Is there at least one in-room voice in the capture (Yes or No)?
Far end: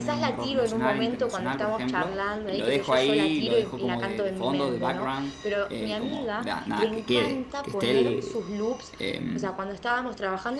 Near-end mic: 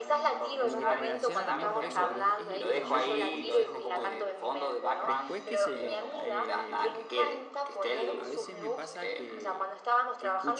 Yes